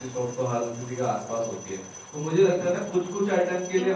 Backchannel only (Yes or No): Yes